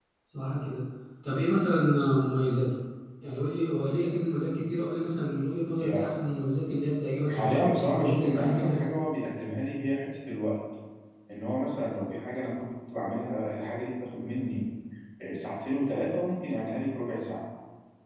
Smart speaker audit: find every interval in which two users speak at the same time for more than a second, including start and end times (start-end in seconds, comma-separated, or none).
7.3-8.8